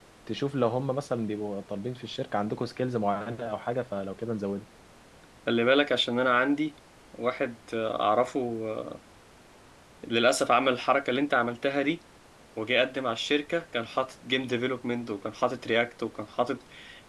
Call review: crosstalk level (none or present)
none